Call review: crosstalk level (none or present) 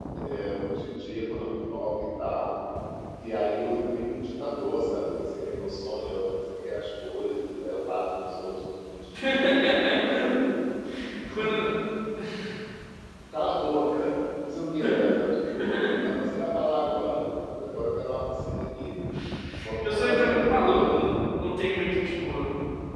present